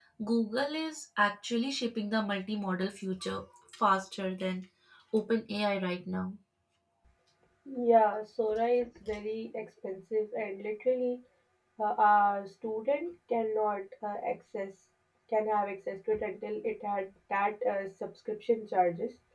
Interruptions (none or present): none